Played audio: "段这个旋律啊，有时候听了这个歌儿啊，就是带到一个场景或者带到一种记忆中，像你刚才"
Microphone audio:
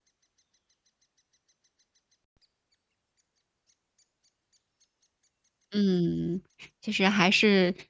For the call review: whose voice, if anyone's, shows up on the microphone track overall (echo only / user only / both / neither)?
user only